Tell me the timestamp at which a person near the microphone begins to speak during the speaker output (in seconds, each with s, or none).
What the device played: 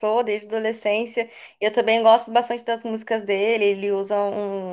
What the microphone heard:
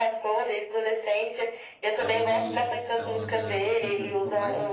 2.0 s